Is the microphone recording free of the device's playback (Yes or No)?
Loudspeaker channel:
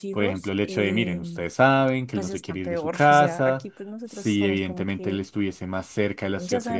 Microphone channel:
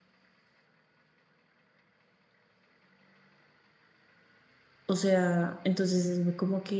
Yes